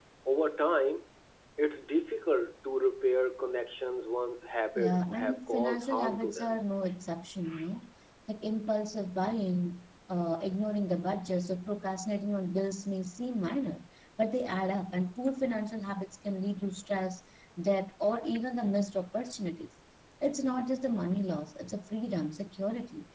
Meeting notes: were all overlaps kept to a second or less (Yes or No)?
No